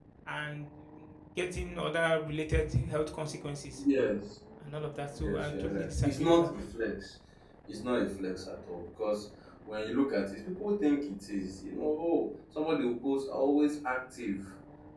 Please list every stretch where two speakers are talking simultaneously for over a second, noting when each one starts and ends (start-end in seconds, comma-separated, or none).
5.2-6.5